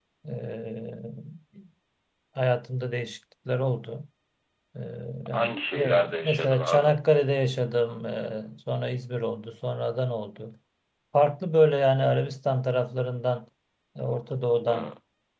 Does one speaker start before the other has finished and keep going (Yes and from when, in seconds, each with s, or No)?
Yes, from 5.3 s